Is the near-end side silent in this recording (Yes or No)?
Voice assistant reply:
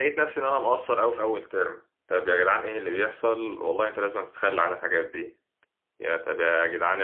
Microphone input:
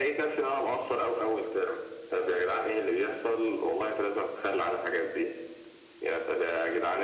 Yes